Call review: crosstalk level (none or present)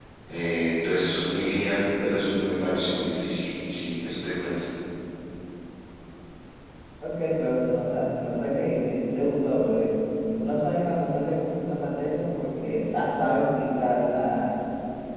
none